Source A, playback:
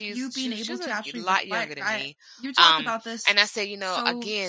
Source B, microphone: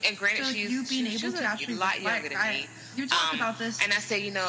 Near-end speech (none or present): none